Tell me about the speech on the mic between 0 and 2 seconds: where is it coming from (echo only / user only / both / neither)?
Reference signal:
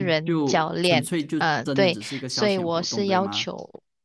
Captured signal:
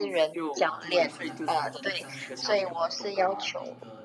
both